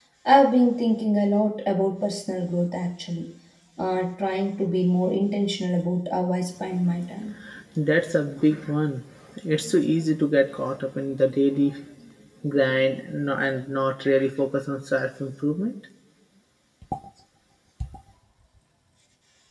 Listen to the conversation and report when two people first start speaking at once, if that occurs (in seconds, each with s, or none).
none